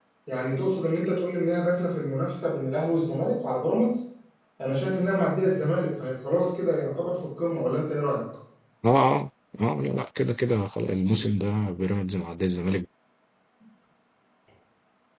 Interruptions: none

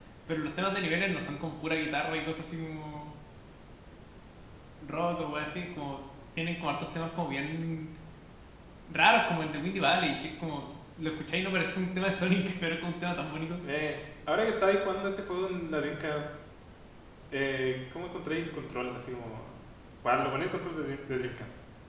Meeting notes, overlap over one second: none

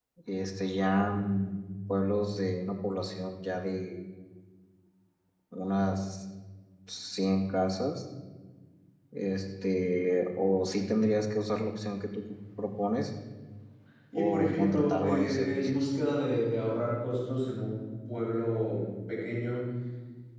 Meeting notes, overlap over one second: present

